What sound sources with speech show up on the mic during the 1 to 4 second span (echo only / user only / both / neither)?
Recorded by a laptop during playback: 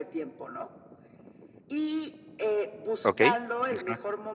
both